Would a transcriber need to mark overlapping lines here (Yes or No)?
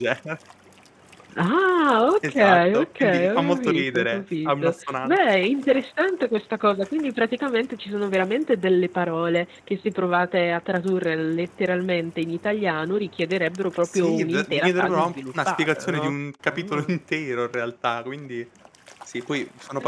Yes